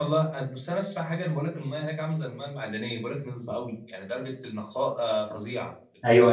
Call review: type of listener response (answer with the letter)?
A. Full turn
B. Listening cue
A